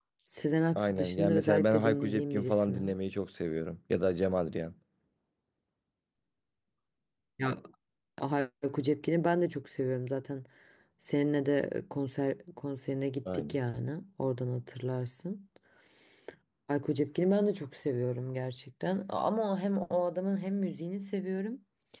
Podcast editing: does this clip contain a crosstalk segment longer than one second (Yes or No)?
Yes